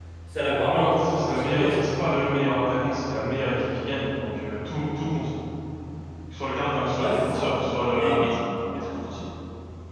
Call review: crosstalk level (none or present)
present